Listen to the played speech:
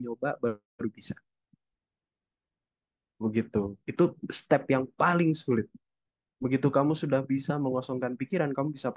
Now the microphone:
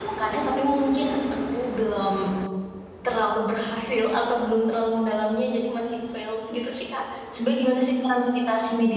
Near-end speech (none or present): present